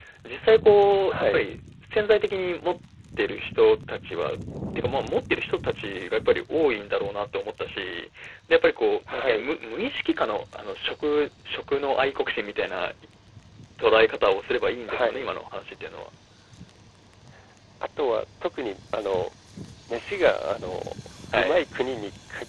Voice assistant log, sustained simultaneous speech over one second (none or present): none